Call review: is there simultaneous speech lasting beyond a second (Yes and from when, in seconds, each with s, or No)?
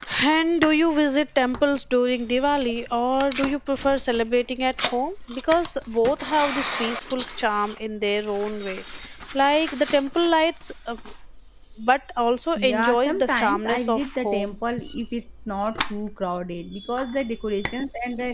Yes, from 12.6 s